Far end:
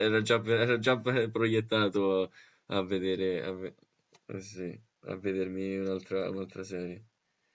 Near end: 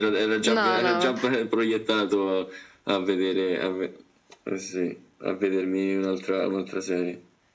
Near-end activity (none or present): present